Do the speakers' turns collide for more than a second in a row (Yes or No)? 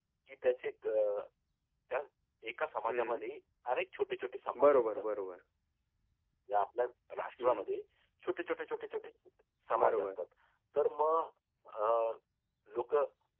No